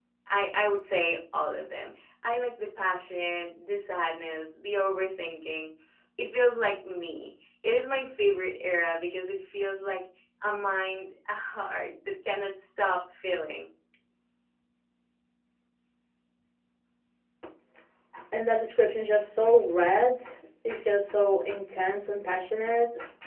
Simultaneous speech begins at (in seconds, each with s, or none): none